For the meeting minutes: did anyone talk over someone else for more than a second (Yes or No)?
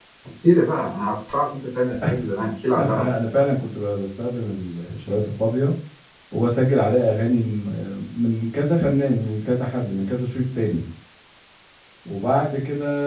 No